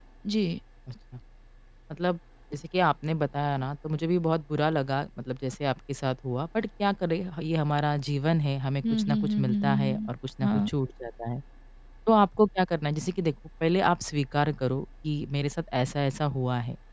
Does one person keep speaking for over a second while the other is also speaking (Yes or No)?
Yes